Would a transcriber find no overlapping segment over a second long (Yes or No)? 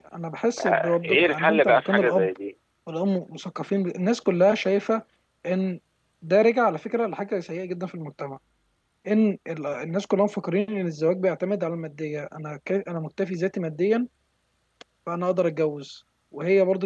No